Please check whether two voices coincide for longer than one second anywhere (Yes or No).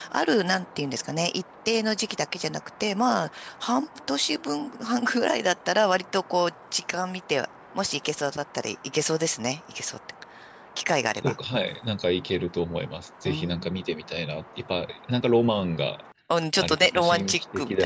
Yes